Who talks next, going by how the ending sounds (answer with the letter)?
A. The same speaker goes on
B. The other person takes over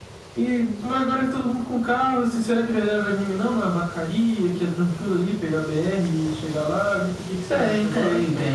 B